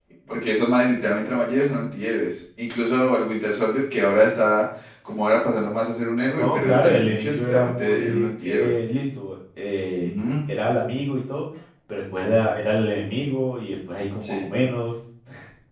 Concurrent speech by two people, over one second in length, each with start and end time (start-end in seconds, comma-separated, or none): 6.4-8.7